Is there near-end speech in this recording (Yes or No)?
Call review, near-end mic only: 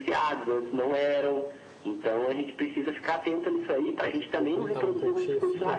Yes